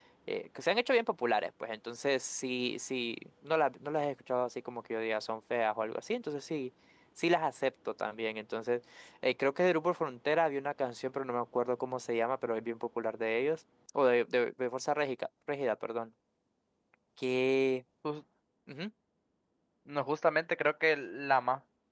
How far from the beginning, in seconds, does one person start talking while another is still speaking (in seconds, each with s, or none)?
none